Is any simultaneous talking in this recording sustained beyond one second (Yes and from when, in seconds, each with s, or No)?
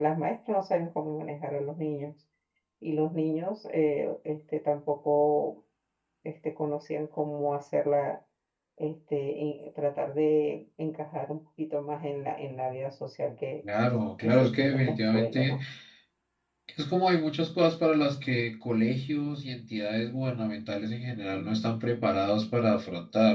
Yes, from 14.2 s